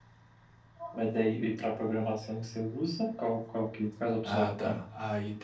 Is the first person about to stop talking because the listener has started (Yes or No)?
Yes